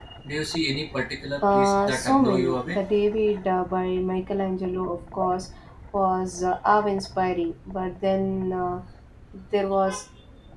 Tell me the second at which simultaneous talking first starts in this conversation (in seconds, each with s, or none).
1.4 s